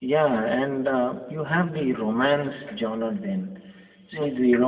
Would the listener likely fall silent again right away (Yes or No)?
Yes